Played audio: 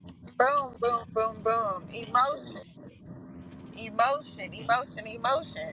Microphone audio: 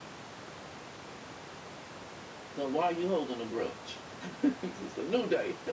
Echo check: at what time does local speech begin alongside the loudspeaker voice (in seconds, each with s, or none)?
2.5 s